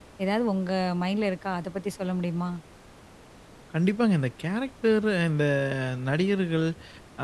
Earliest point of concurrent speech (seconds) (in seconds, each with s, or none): none